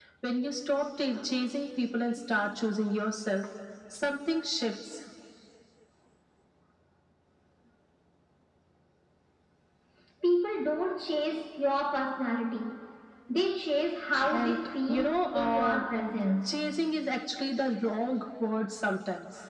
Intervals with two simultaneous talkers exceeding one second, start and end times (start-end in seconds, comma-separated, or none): 14.3-15.9